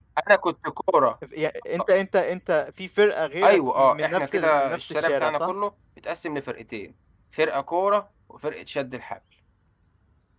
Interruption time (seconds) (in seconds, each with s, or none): 3.4 s